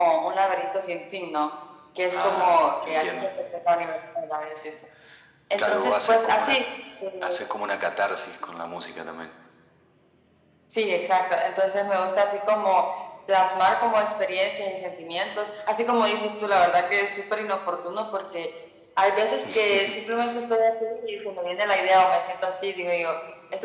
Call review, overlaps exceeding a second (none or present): present